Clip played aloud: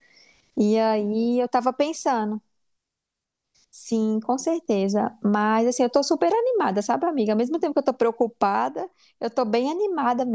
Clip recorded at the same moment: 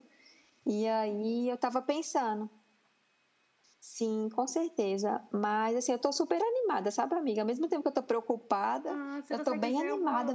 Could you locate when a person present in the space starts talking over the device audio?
8.8 s

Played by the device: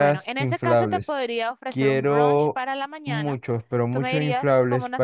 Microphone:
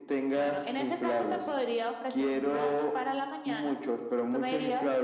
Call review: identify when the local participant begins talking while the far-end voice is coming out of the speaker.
none

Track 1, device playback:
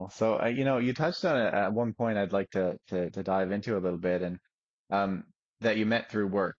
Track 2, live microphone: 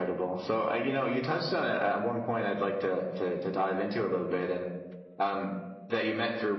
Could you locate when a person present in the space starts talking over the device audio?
none

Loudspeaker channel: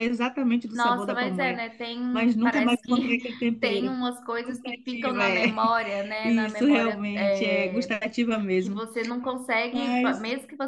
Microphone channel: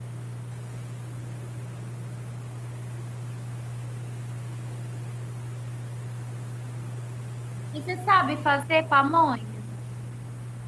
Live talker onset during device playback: 7.7 s

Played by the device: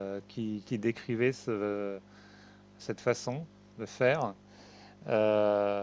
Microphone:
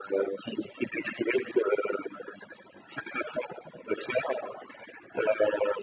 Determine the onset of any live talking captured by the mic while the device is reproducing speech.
none

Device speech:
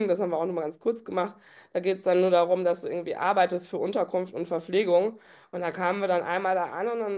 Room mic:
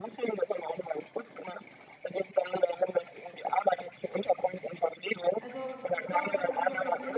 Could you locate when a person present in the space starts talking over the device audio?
5.4 s

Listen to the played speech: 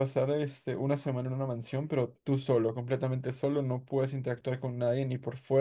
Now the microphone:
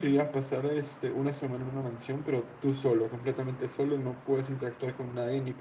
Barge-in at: none

